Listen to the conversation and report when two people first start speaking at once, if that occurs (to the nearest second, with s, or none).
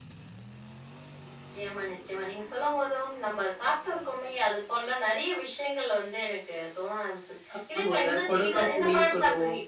8 s